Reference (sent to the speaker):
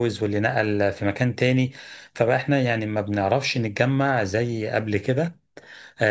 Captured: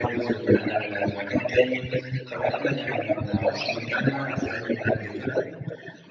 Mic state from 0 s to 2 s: echo only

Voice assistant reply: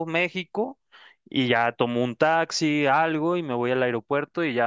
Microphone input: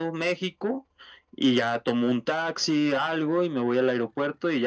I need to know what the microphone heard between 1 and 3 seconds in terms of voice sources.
echo only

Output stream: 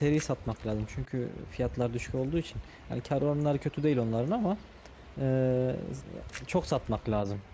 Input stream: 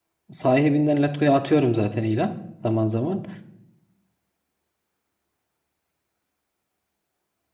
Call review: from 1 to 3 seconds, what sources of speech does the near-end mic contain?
user only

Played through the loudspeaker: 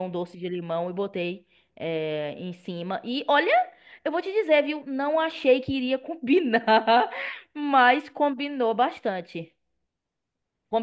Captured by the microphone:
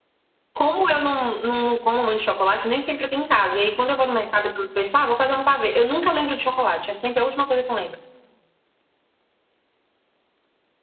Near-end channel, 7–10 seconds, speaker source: user only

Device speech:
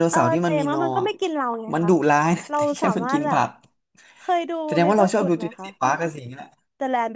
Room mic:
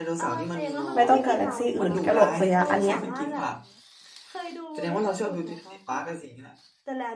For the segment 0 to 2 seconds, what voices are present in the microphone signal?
both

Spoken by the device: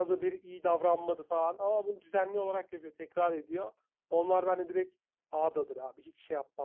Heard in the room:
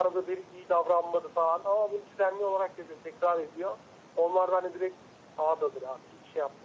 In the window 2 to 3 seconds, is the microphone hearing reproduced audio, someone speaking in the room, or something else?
echo only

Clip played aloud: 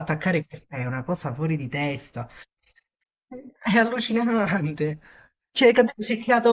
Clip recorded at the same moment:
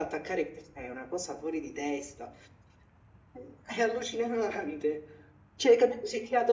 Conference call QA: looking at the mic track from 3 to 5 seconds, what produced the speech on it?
echo only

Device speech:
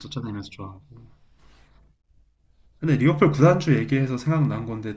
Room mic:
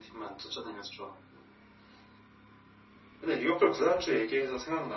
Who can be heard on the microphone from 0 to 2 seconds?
echo only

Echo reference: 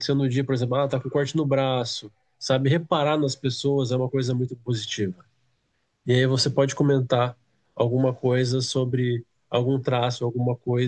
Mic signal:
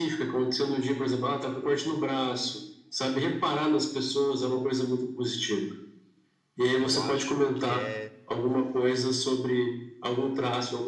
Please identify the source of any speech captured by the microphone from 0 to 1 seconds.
echo only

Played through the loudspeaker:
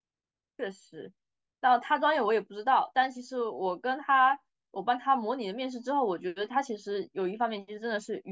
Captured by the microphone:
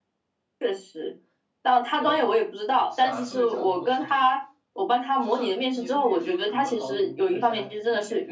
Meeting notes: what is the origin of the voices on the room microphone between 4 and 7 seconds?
both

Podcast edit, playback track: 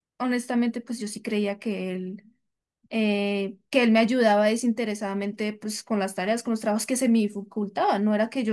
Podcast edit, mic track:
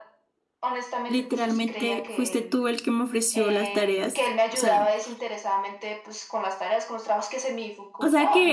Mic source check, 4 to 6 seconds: both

